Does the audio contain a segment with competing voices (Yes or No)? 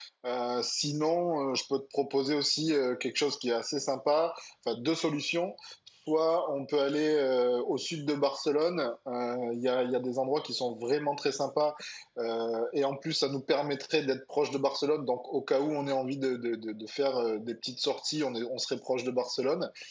No